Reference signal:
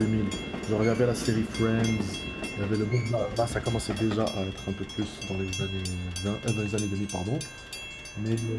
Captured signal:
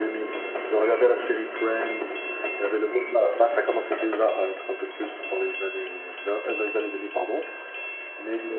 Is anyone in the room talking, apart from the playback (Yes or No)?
No